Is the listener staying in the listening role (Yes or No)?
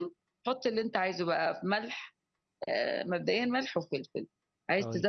Yes